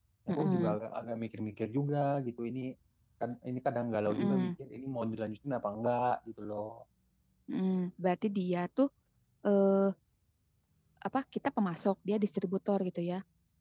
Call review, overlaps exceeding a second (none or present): none